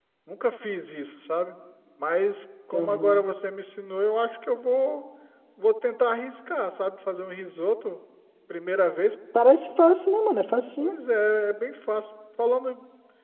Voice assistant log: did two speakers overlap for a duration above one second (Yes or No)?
No